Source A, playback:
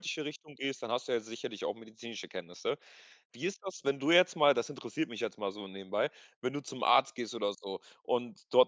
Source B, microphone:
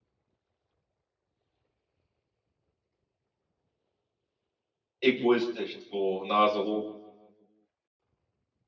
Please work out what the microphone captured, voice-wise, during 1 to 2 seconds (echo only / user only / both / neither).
neither